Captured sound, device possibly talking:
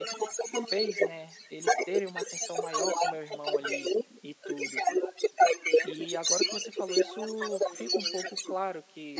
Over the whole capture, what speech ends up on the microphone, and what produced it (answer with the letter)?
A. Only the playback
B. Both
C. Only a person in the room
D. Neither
B